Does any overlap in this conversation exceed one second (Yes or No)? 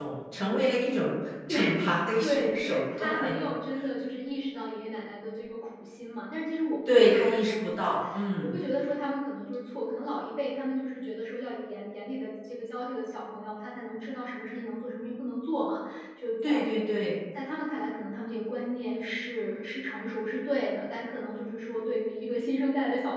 Yes